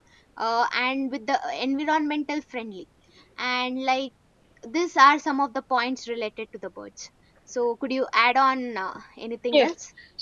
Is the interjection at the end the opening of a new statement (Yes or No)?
Yes